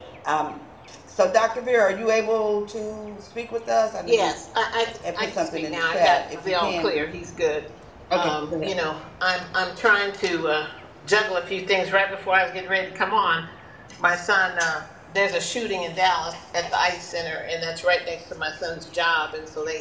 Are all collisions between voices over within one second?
No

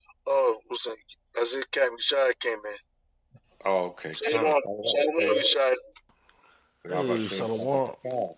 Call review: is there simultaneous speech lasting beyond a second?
Yes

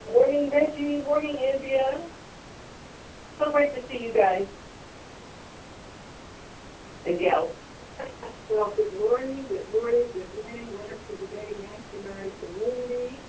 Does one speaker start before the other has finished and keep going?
No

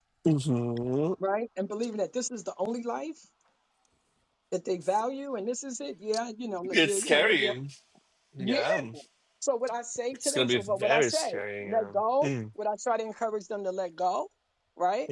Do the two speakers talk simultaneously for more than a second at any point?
Yes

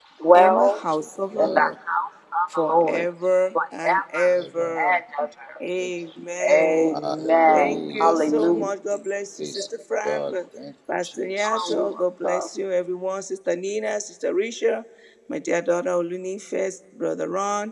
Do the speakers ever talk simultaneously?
Yes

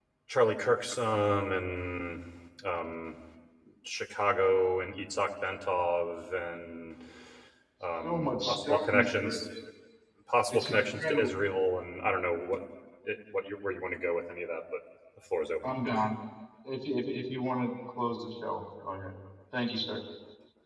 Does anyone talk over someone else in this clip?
Yes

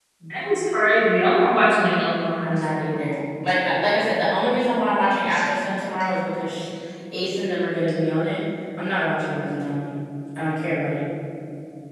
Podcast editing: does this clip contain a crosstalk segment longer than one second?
No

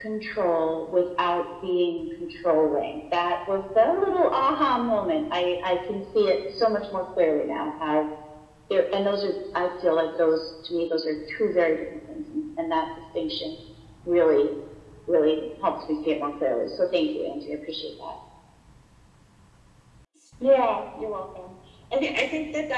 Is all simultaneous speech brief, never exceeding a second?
Yes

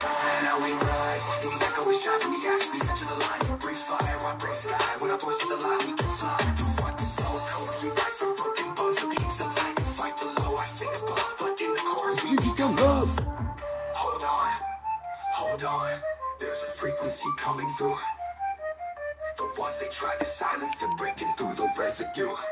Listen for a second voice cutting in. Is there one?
No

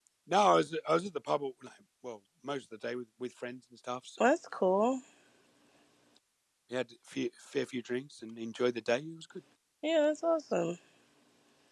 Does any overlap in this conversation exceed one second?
No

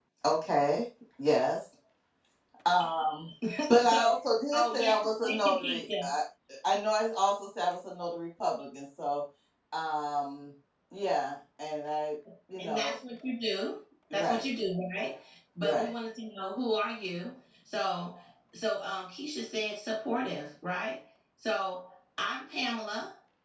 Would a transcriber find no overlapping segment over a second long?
No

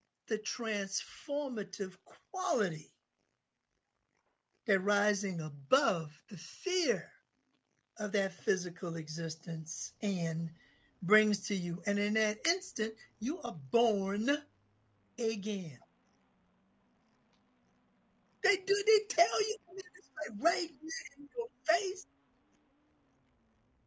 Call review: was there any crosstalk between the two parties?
No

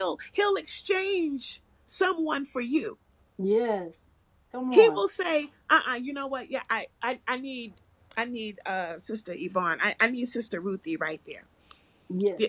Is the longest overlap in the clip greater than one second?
No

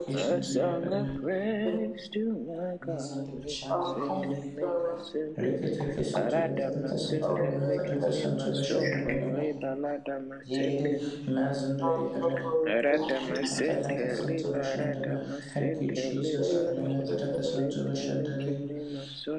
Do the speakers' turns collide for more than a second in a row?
Yes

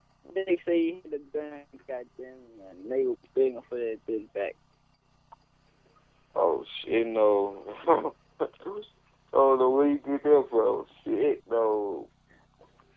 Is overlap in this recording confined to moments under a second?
Yes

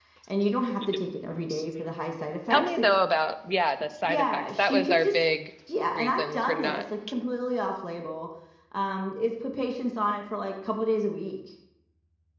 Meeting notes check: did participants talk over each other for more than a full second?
Yes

